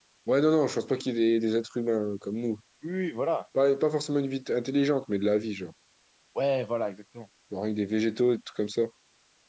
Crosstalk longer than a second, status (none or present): none